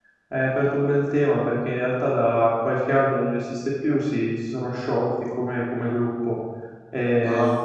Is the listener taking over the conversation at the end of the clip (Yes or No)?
No